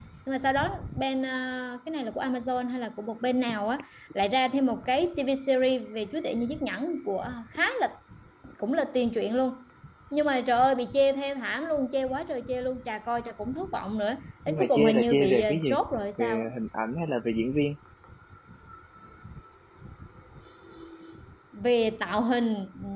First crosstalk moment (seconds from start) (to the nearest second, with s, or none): 14 s